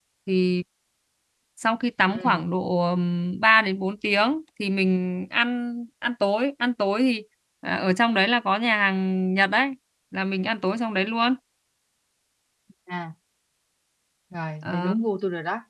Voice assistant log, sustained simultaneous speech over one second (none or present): none